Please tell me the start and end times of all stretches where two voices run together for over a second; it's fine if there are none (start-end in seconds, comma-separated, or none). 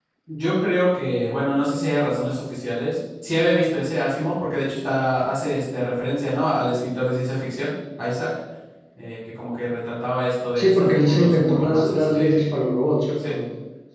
10.6-12.6